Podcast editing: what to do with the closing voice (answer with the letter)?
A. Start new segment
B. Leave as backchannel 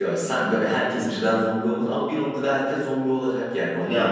A